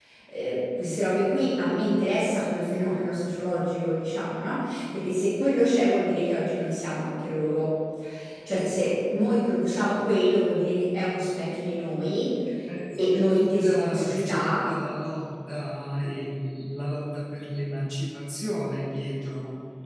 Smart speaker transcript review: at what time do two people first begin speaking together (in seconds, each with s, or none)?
13.0 s